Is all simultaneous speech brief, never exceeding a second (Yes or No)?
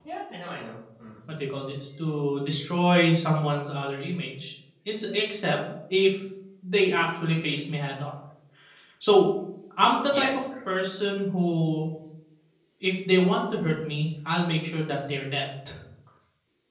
Yes